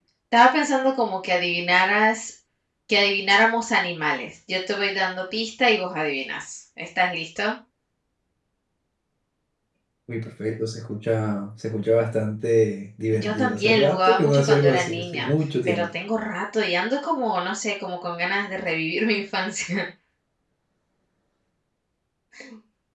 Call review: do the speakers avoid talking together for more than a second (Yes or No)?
No